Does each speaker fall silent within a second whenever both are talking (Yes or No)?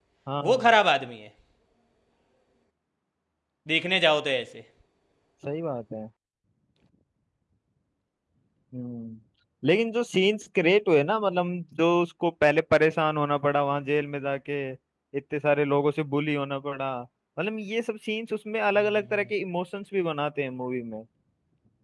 Yes